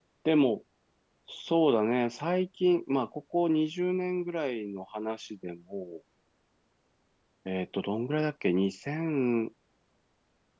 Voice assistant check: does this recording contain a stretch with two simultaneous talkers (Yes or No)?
No